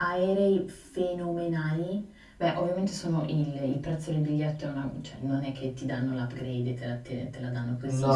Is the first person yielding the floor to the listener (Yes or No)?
Yes